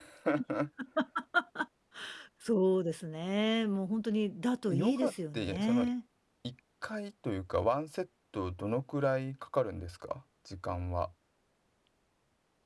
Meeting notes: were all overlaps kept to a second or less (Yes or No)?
No